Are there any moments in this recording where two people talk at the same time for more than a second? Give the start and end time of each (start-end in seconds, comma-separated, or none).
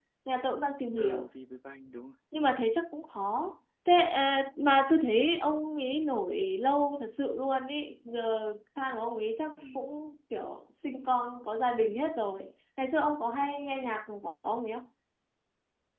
none